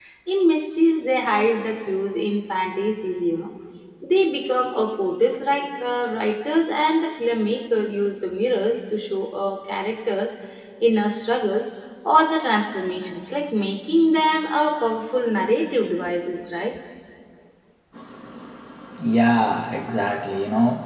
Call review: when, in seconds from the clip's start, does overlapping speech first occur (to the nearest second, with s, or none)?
none